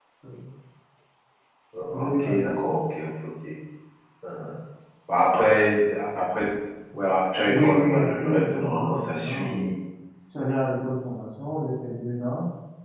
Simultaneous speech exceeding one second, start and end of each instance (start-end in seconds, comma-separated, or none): 7.5-9.7